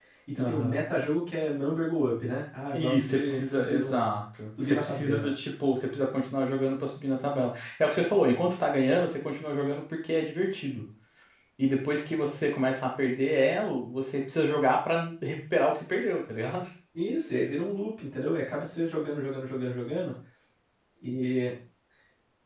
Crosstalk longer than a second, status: present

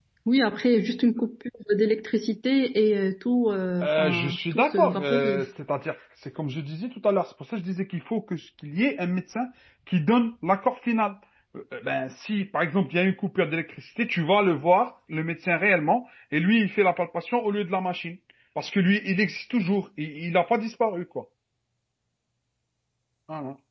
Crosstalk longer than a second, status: present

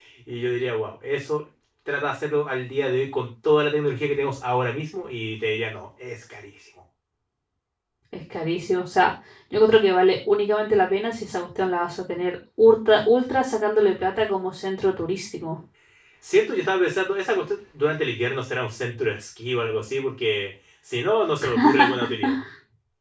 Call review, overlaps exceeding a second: none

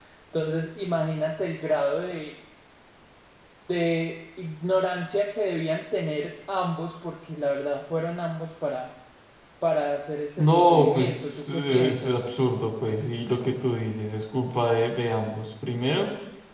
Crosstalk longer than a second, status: present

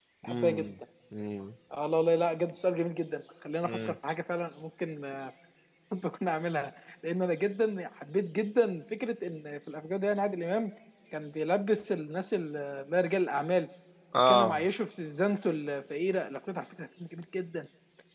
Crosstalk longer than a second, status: none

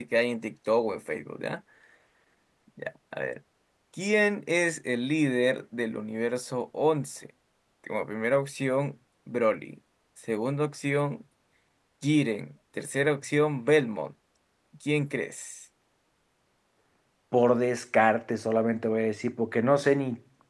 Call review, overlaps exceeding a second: none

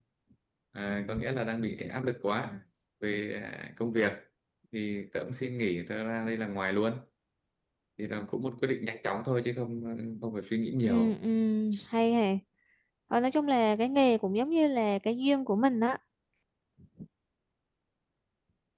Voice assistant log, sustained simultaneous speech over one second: none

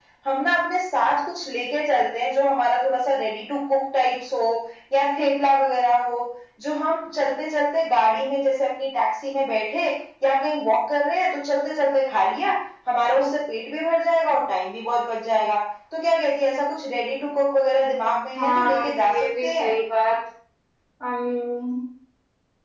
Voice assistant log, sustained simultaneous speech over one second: present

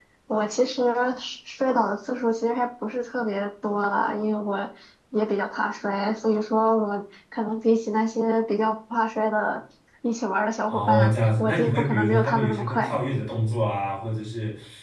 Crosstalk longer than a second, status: present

